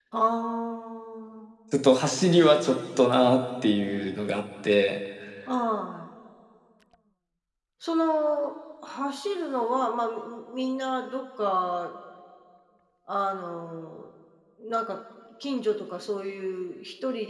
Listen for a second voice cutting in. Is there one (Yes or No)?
No